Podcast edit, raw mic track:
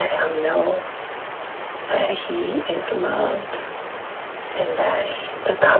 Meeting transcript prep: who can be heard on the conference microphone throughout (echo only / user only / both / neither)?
echo only